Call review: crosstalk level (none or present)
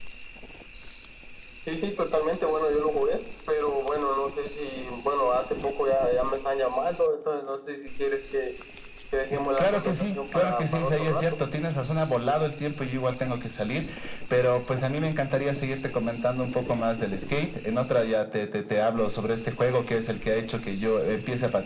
present